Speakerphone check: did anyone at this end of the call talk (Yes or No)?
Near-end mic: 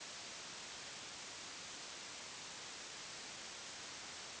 No